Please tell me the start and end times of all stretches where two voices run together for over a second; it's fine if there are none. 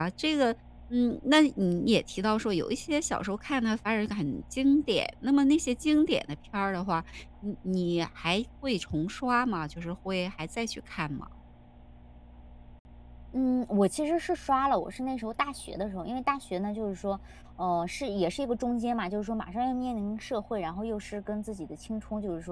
none

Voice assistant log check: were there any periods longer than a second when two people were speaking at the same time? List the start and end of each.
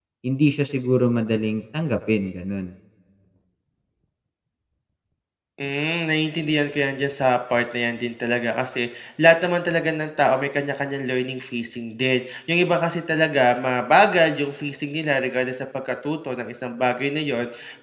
none

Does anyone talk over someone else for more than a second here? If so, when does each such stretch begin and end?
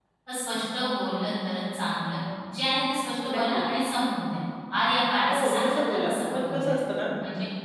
5.3-6.7

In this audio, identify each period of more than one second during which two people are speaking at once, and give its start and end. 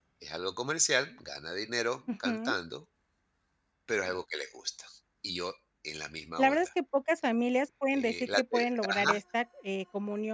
7.9-9.1

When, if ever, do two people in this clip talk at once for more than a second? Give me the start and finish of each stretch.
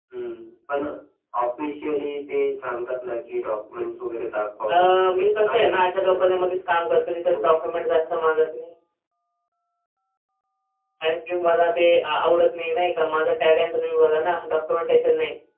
4.7-6.5

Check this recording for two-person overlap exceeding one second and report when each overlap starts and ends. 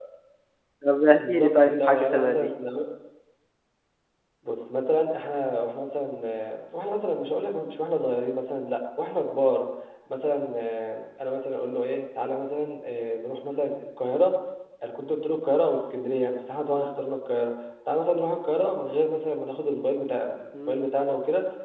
1.2-2.5

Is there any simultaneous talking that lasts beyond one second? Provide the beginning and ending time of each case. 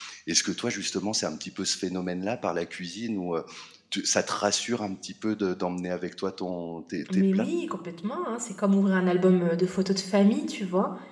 none

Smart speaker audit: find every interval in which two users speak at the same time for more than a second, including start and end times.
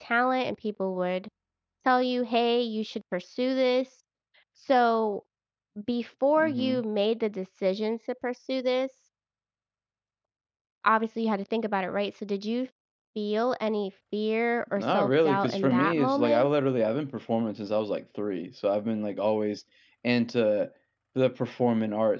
14.8-16.5

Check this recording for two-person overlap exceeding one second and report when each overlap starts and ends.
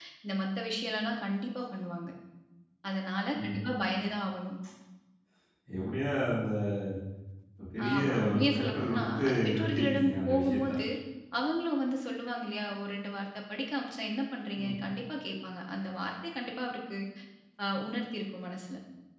7.9-10.7

